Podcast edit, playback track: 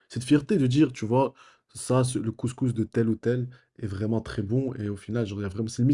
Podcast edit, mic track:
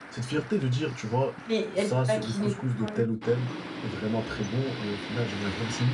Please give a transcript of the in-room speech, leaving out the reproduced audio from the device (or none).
Mais elle peut pas cuisiner. Ouais.